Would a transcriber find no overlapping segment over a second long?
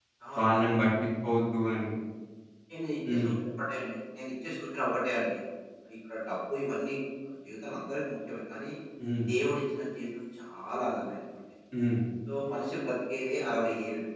Yes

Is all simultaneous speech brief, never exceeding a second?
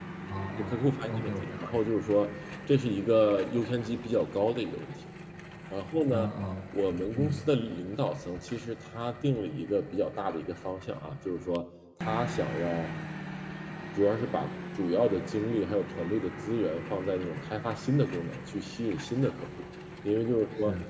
No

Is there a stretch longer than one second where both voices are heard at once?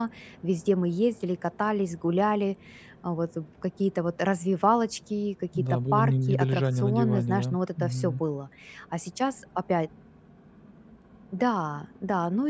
Yes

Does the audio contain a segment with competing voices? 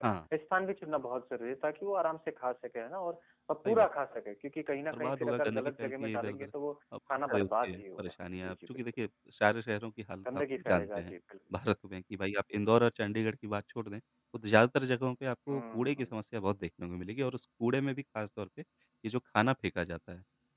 Yes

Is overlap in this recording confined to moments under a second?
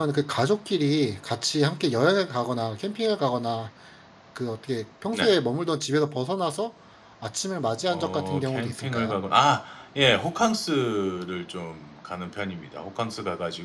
No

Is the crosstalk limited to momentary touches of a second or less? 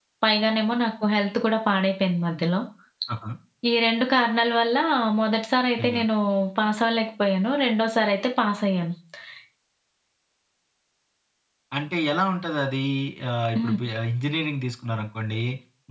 Yes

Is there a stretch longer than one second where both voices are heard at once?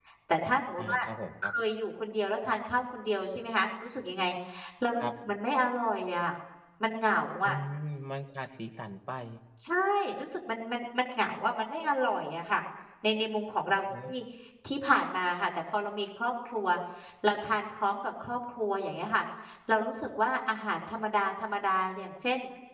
No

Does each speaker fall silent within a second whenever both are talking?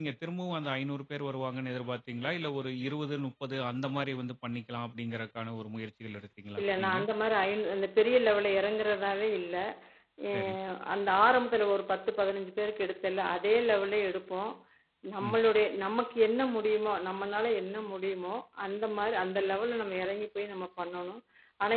Yes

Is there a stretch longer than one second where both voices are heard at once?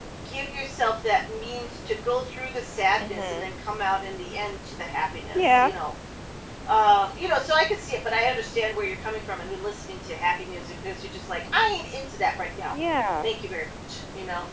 No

